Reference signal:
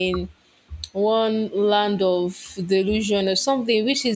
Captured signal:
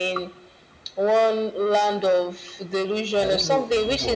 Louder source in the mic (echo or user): echo